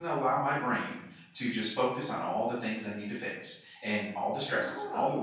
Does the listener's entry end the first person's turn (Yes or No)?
No